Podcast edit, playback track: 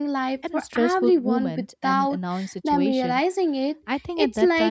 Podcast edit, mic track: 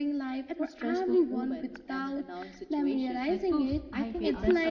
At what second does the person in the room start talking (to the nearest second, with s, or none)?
3 s